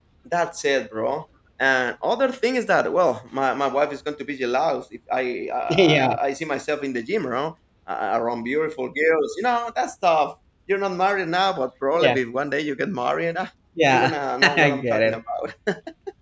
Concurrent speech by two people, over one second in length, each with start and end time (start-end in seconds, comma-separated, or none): 13.9-15.2